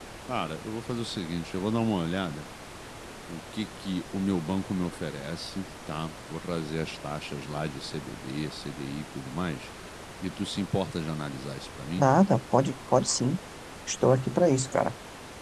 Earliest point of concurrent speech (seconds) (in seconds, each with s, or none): none